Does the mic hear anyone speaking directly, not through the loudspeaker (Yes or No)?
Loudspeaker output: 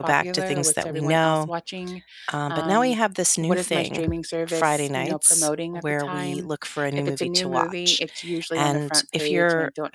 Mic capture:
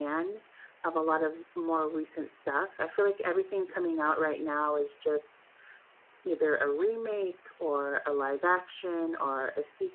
Yes